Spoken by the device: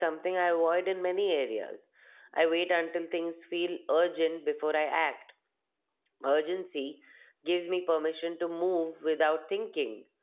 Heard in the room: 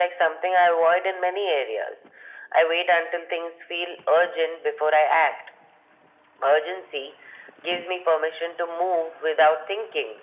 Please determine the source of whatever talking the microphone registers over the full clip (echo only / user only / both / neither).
echo only